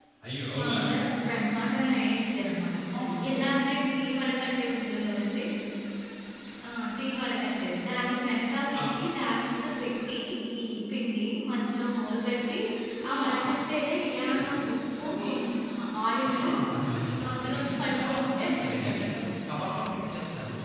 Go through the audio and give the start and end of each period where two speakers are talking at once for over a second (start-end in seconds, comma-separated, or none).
17.3-19.0